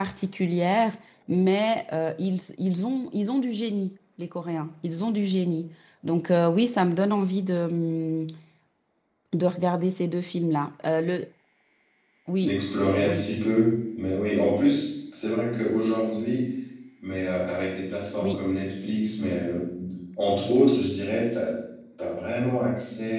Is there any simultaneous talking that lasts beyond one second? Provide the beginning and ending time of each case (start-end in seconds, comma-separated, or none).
none